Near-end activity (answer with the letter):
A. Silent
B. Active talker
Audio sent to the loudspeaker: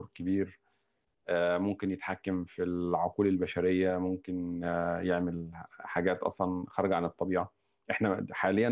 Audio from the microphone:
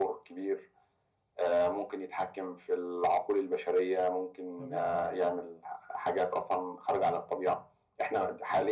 B